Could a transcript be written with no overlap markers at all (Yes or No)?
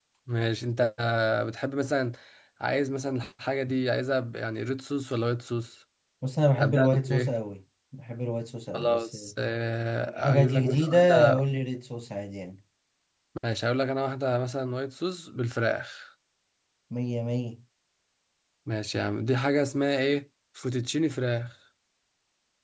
No